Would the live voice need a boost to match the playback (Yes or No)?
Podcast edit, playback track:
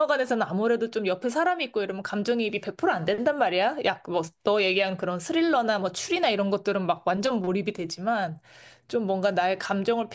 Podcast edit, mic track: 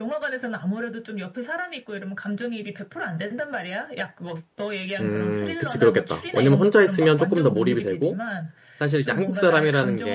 No